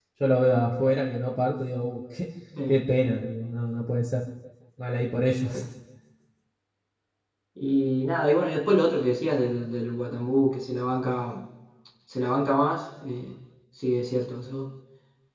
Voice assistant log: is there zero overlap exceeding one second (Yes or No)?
Yes